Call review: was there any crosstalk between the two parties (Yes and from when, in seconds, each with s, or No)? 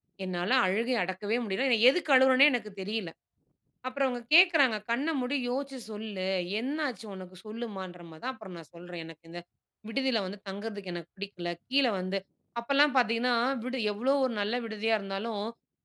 No